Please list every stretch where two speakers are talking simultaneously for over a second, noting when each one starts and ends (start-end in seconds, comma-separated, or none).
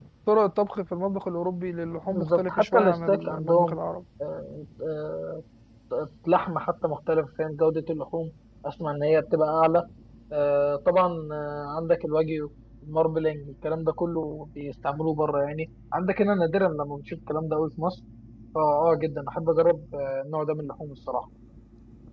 2.1-3.8